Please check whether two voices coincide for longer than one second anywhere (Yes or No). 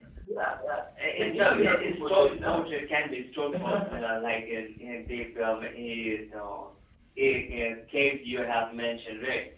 Yes